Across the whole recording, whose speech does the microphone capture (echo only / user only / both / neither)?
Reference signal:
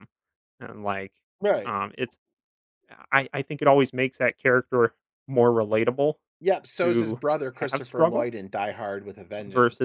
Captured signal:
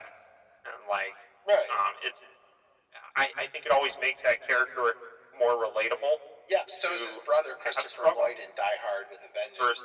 echo only